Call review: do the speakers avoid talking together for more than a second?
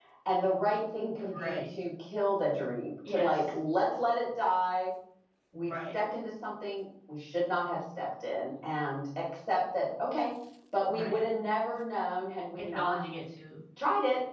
Yes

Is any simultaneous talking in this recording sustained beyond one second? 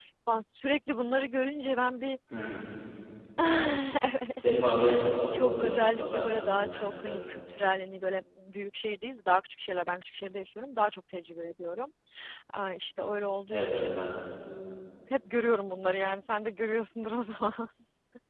Yes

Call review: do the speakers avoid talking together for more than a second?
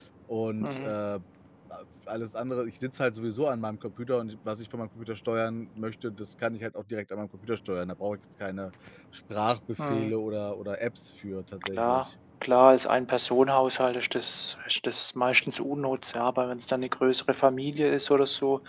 Yes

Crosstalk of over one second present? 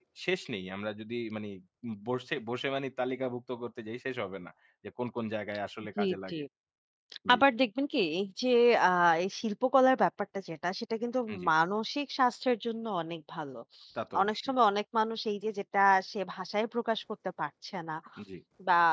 No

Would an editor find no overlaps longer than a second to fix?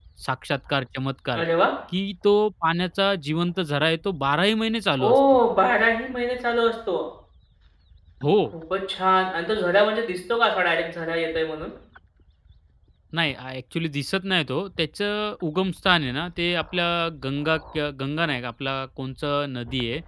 Yes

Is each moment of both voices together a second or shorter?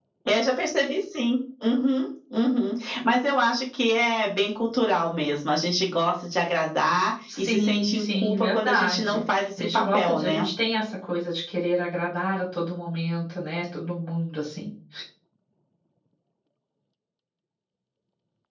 No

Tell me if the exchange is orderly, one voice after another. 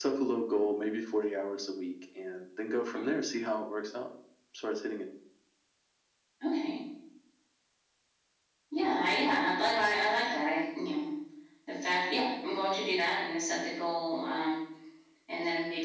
Yes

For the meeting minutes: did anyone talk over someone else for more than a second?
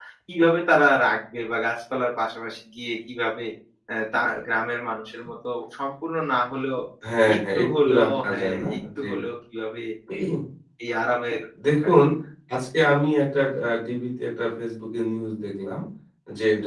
Yes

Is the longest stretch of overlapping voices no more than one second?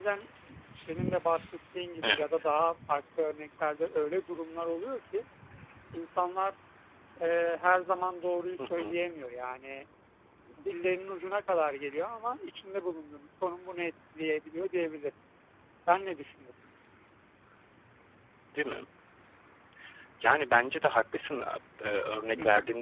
Yes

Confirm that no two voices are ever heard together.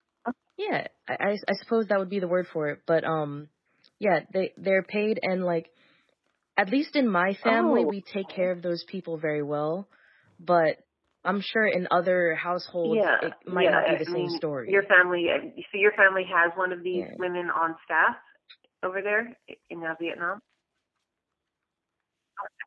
No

